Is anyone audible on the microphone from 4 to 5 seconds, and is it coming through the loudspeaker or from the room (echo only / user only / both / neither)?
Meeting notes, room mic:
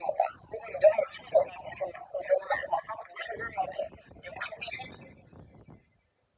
echo only